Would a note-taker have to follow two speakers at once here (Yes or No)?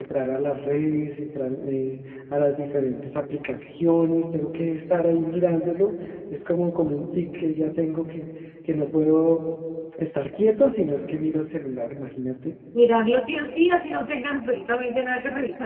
No